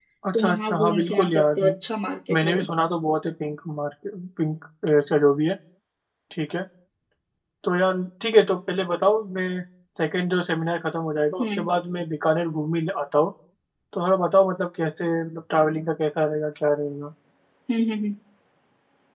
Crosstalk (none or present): present